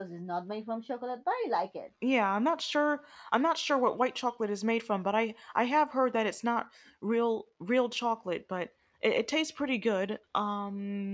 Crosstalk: none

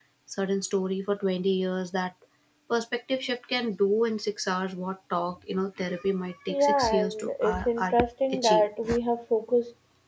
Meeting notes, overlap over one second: present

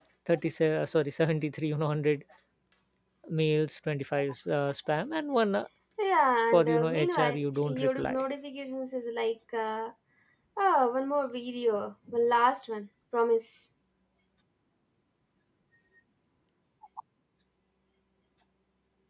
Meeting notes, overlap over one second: present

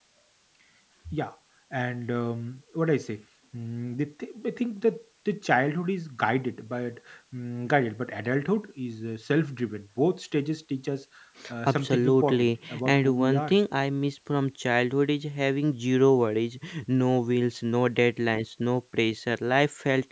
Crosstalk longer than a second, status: present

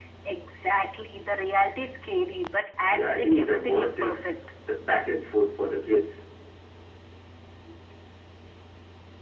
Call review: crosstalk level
present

